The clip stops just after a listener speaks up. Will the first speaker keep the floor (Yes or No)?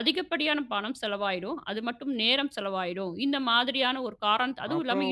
No